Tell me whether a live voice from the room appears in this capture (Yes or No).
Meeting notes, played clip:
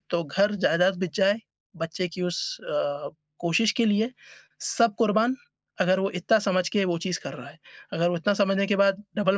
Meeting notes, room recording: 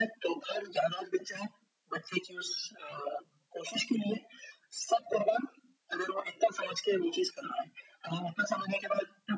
No